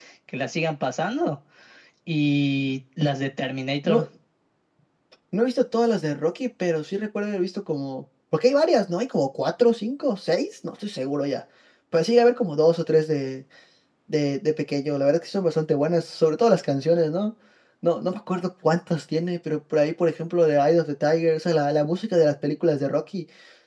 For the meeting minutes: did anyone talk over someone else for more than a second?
No

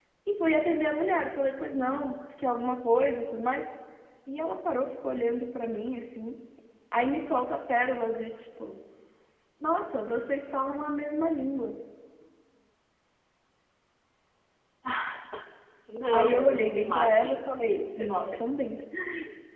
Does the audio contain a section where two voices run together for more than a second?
Yes, from 16.1 s

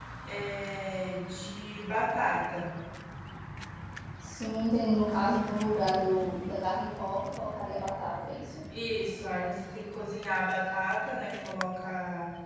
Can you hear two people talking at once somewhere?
No

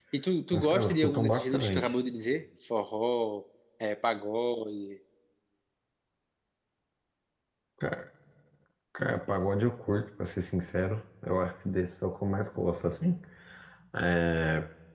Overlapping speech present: Yes, from 0.5 s

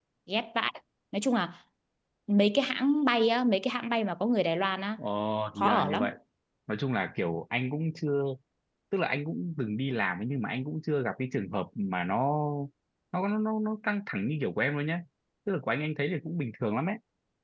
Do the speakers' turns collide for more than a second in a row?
No

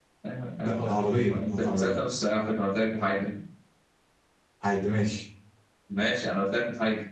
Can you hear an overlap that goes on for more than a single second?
Yes, from 0.6 s

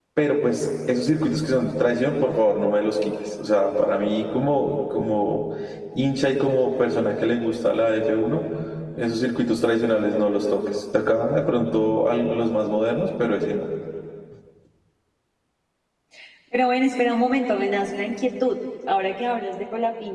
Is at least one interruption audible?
No

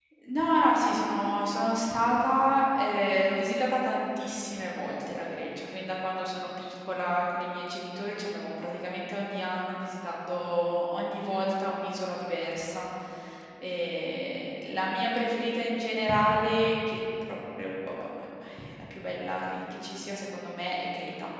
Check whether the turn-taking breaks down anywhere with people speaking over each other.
No

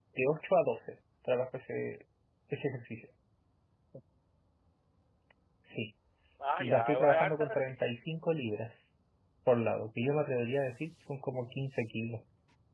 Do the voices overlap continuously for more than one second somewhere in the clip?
Yes, from 6.6 s

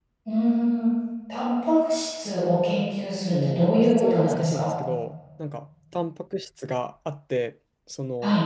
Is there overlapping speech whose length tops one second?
Yes, from 3.3 s

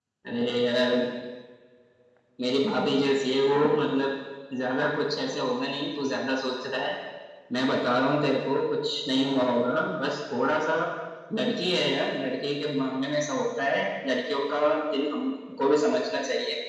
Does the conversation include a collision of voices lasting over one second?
No

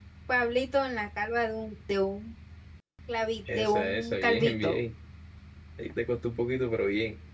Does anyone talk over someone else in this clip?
Yes, from 3.5 s

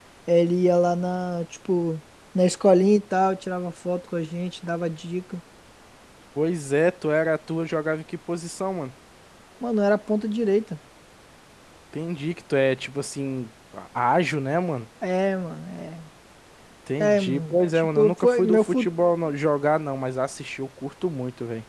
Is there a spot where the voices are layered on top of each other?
Yes, from 17.0 s

